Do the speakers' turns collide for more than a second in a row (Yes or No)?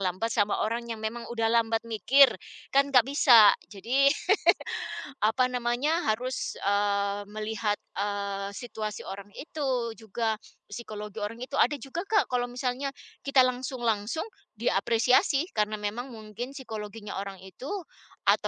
No